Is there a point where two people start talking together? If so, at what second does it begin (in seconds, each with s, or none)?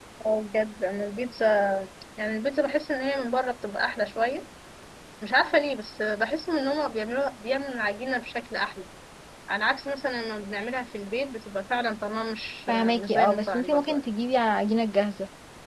12.7 s